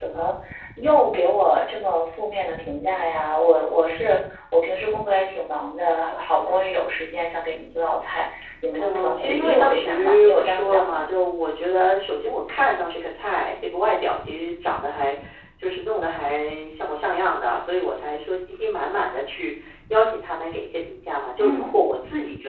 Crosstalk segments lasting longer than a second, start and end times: 8.8-11.0

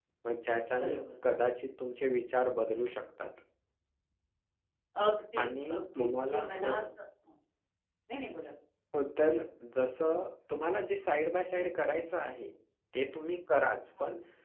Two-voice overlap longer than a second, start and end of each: 5.4-6.8

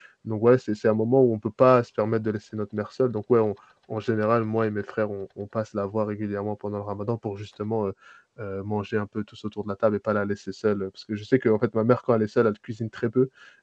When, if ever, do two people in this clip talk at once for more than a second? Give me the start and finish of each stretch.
none

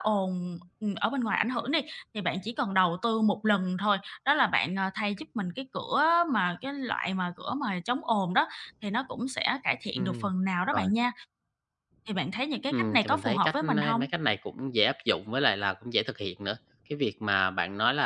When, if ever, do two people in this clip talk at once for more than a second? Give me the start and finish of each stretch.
12.7-14.1

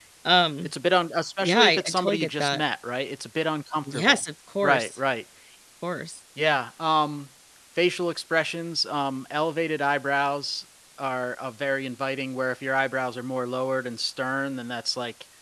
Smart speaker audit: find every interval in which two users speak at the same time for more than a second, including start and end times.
1.4-2.6

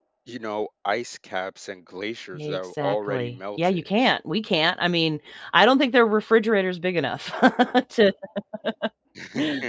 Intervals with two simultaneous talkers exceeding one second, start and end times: 2.3-3.8

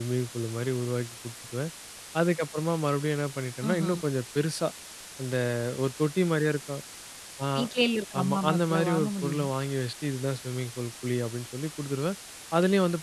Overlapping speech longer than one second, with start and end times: 8.2-9.5

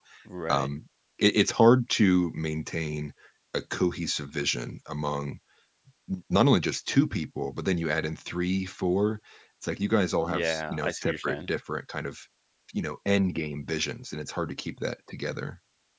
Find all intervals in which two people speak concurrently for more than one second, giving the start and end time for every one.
10.2-11.5

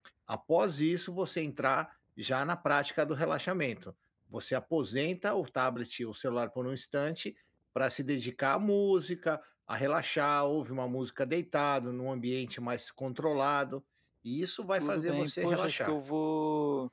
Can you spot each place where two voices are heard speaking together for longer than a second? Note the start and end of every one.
14.7-16.0

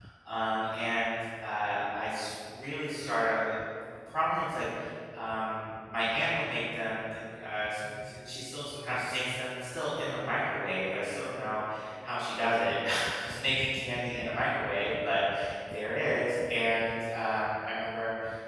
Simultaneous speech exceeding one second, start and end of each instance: none

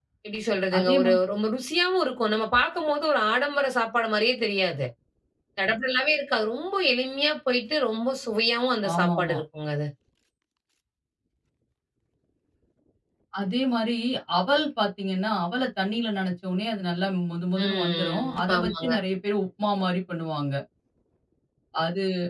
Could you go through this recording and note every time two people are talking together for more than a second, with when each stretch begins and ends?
17.6-18.9

